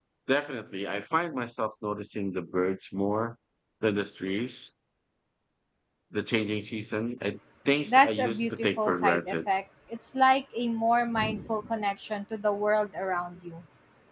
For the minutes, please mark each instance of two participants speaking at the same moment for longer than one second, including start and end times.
7.8-9.4

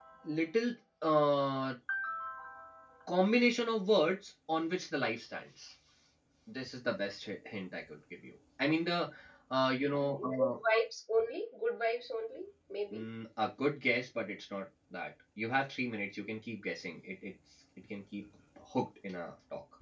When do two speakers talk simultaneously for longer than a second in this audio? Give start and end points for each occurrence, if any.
none

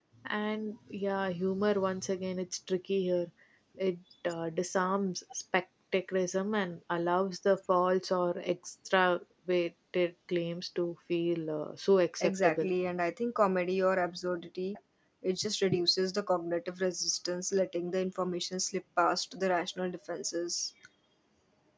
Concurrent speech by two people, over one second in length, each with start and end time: none

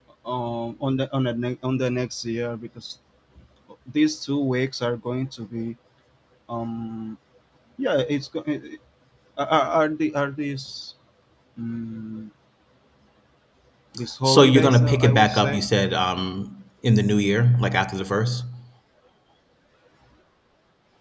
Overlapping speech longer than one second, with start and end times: 14.2-15.6

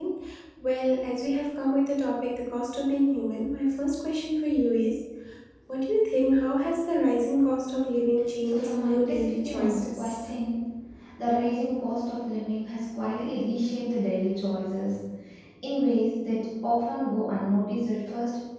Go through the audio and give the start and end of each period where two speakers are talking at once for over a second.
8.4-10.3

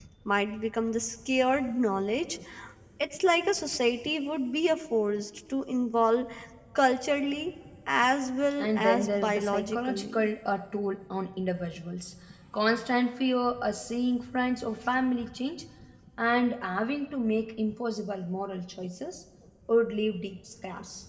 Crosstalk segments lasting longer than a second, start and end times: 8.6-10.3

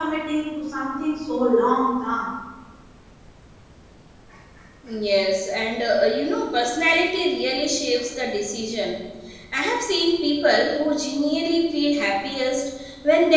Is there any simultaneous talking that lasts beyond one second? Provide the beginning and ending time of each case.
none

